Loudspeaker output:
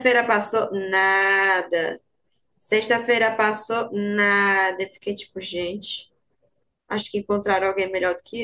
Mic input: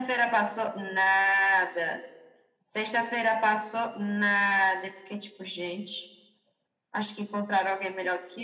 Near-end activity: none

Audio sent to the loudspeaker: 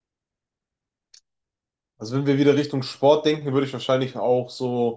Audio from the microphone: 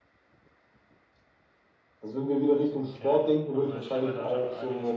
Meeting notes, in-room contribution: present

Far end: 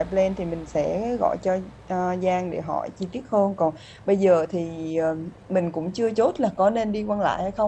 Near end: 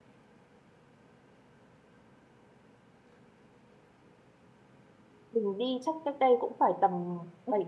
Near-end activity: present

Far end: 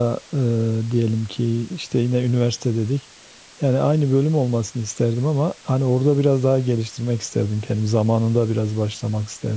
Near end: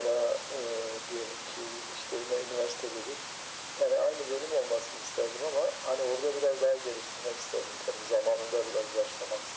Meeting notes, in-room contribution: none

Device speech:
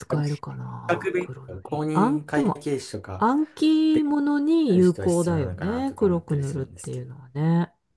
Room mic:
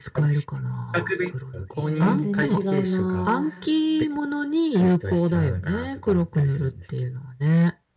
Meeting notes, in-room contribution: present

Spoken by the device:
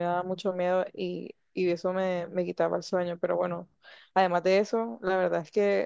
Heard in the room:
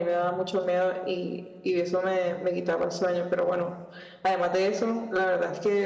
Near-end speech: none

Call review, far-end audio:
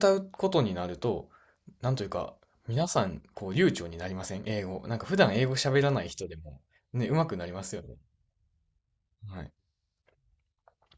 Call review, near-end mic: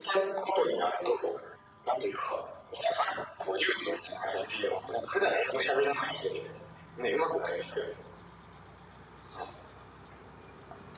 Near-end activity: none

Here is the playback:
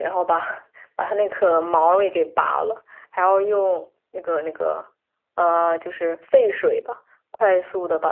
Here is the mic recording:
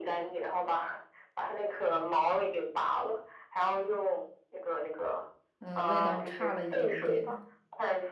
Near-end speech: present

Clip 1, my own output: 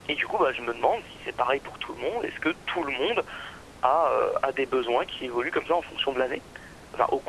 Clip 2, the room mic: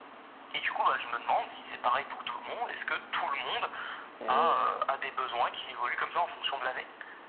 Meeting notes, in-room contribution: present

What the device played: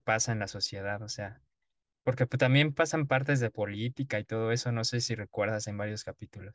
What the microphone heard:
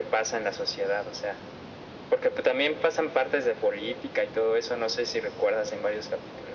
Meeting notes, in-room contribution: none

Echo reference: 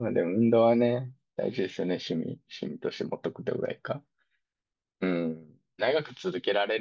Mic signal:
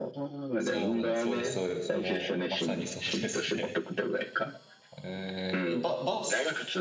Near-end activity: present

